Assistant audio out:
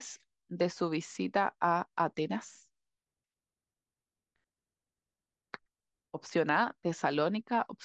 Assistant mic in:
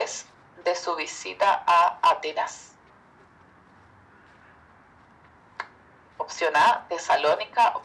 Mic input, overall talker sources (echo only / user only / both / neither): echo only